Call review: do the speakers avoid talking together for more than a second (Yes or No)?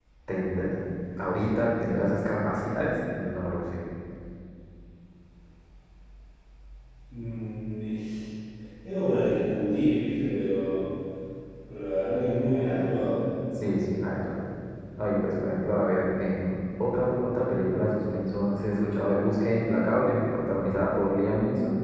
Yes